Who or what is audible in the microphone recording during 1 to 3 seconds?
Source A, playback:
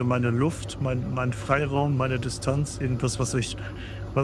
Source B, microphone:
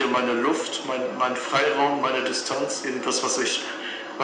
echo only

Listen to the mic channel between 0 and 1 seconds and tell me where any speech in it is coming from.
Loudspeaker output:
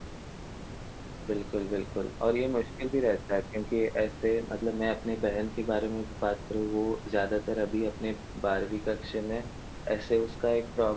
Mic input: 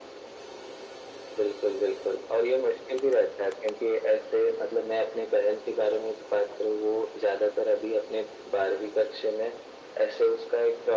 neither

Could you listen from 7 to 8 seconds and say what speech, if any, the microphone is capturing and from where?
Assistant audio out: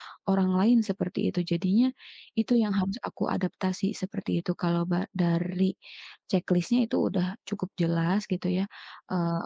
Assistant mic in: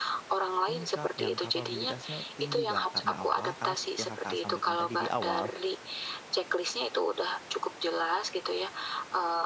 echo only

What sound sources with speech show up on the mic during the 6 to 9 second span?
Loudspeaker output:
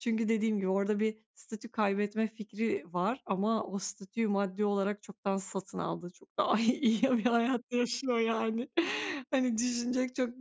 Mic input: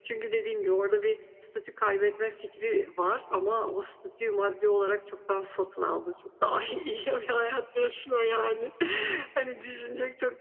echo only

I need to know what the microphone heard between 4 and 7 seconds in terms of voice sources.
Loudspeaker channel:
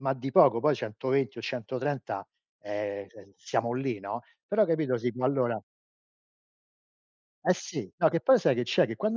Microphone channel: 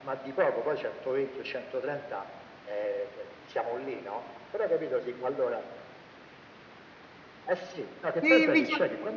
echo only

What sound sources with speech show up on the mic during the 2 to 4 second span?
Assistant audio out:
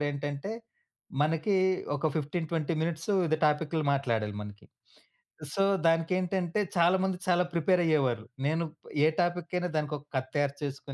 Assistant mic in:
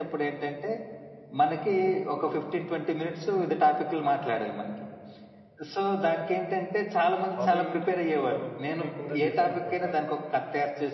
echo only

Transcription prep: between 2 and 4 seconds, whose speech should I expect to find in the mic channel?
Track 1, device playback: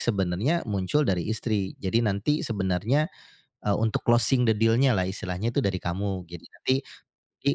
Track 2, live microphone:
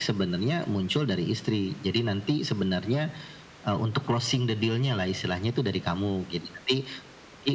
echo only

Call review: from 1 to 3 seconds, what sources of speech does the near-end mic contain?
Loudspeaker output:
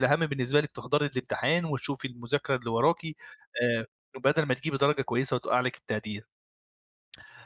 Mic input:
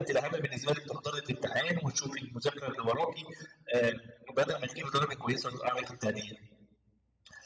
echo only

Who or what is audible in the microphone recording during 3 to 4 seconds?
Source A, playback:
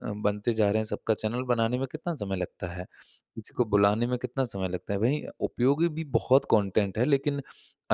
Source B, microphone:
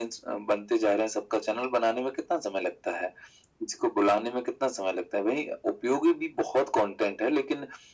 echo only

